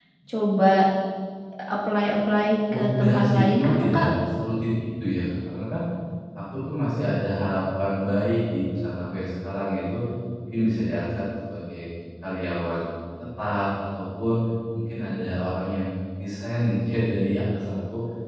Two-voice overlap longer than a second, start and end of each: 2.7-4.0

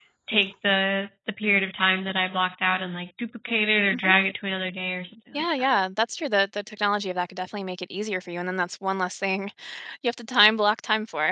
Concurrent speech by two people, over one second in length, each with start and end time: none

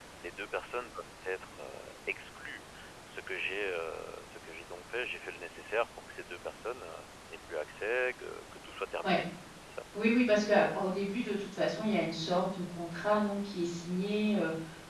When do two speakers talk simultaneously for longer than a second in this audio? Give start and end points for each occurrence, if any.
none

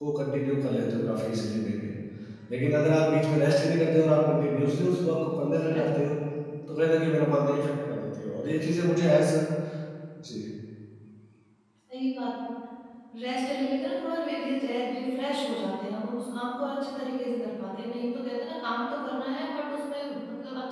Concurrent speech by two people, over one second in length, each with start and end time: none

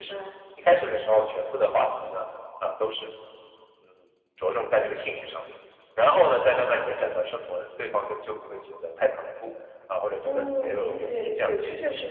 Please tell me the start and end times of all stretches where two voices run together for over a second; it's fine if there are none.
10.2-11.5

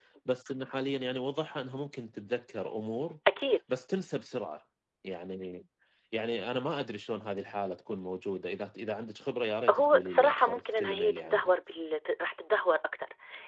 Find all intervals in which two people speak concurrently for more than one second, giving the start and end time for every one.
9.7-11.5

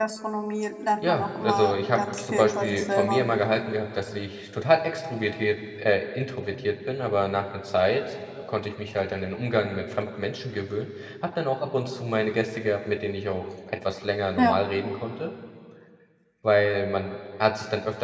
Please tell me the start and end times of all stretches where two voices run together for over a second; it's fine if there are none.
1.1-3.2

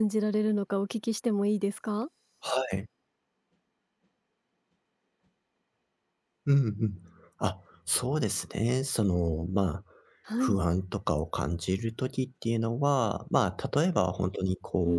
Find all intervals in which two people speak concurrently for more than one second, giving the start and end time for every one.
none

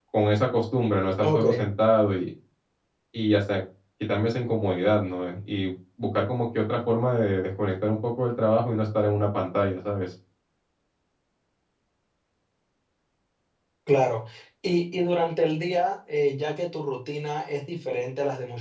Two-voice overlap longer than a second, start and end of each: none

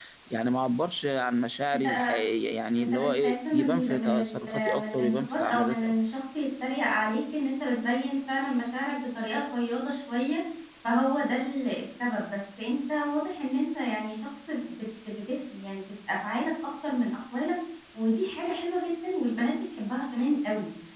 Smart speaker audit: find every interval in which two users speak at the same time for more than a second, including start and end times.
2.8-5.9

